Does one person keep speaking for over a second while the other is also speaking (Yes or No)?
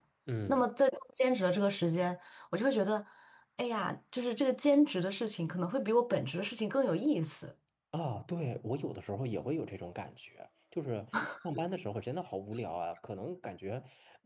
No